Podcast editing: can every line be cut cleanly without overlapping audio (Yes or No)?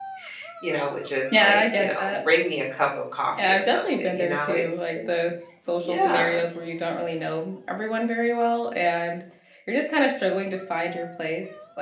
No